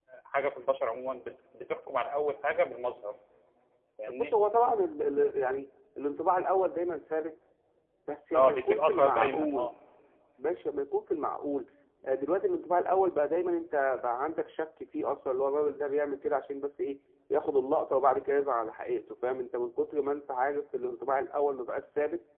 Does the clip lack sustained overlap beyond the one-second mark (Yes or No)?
No